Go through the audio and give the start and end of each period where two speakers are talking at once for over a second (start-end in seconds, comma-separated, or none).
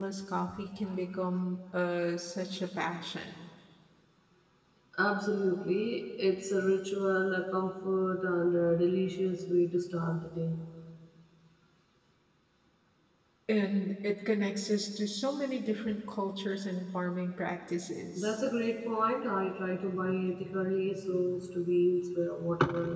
none